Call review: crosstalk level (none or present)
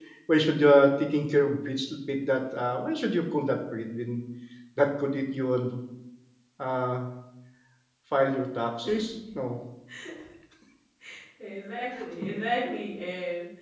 none